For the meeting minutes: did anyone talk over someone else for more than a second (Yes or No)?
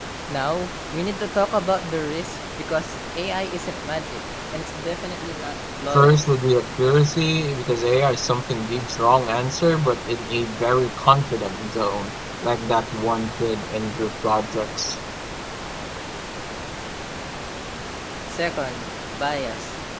No